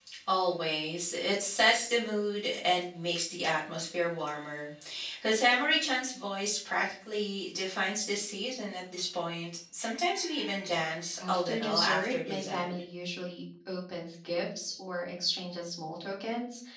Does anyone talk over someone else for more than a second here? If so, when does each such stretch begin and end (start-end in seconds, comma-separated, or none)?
11.3-12.7